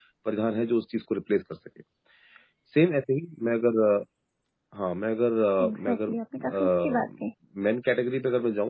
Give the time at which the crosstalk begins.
5.6 s

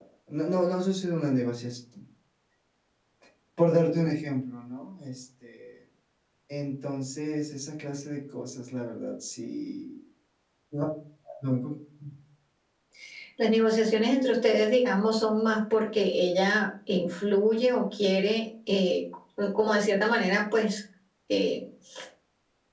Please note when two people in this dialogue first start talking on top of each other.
none

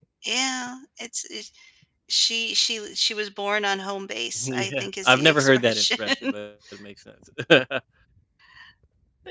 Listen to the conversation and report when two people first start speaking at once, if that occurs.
4.4 s

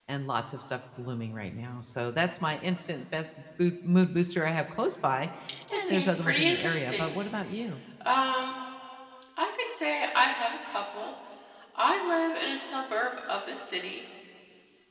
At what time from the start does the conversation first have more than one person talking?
5.8 s

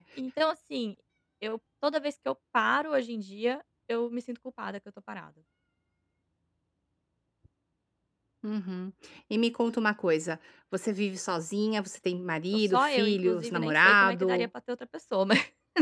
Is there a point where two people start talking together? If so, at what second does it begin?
12.5 s

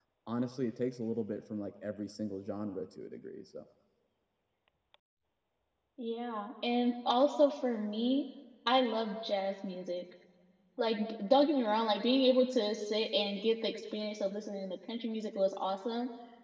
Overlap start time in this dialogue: none

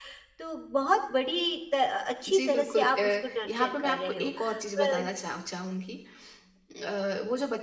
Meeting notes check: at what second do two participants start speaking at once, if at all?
2.3 s

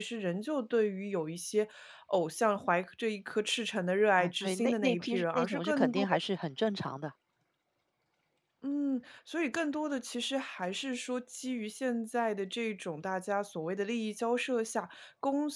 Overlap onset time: 4.1 s

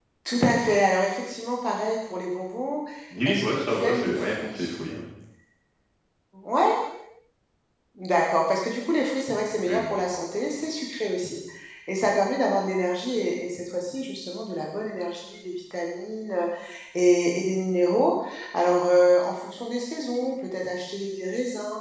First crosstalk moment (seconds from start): 3.2 s

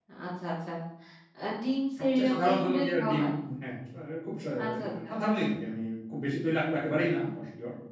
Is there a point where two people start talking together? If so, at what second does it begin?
2.0 s

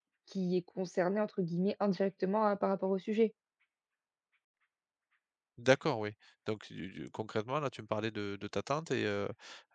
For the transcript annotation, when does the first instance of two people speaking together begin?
none

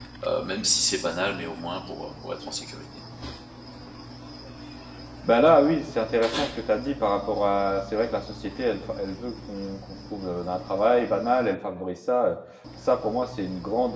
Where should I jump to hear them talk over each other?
none

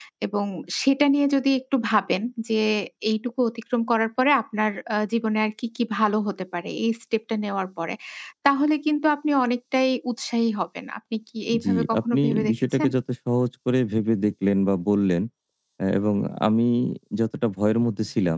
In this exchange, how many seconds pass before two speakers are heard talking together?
11.5 s

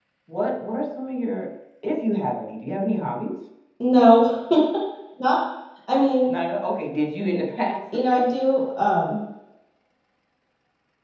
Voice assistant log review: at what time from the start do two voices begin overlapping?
none

